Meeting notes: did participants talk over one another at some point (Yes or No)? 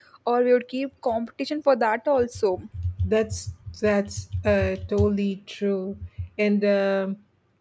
No